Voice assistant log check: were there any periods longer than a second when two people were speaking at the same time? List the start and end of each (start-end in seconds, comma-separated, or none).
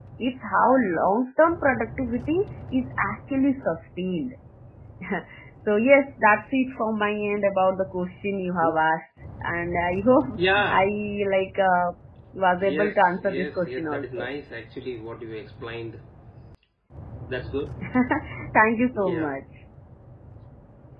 12.6-14.3